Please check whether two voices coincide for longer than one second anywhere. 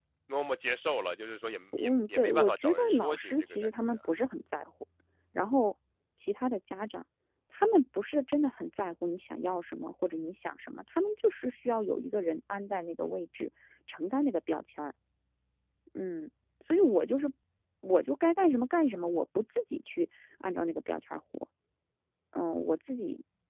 Yes, from 1.7 s

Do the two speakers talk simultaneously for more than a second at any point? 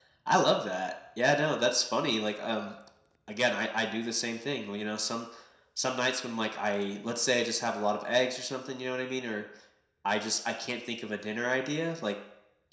No

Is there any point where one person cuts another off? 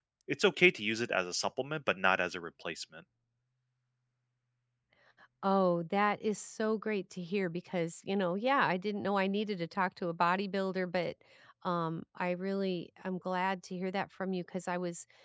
No

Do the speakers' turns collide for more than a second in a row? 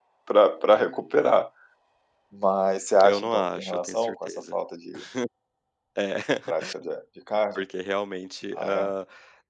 Yes, from 3.0 s

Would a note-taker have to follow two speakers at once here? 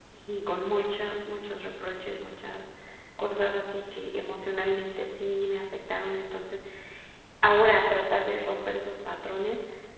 No

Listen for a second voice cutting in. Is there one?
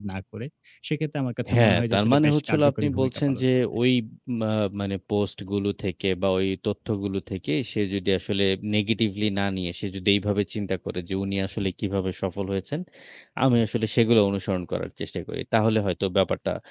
Yes, from 1.5 s

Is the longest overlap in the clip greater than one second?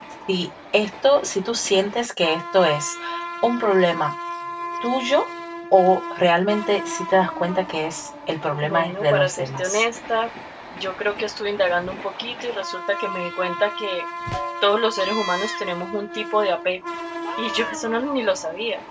Yes, from 8.6 s

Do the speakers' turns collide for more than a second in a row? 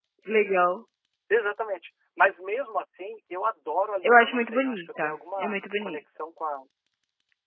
Yes, from 4.0 s

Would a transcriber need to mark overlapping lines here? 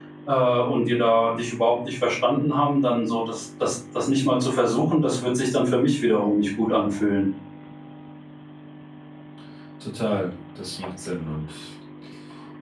No

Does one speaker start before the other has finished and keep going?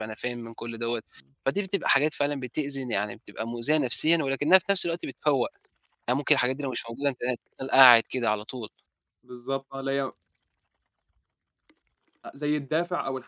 No

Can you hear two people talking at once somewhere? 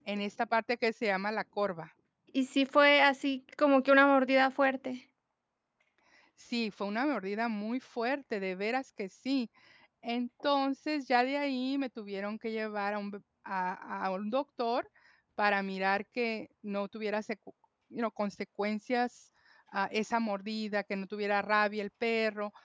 No

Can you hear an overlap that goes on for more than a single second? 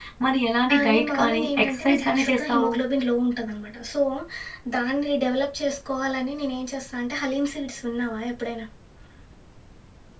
Yes, from 0.7 s

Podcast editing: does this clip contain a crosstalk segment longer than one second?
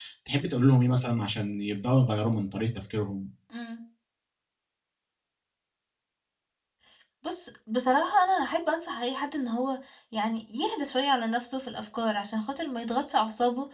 No

